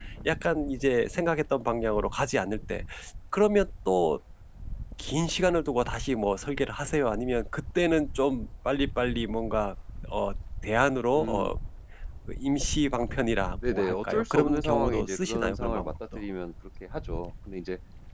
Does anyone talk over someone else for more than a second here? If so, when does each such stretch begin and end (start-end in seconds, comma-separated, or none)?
13.5-16.2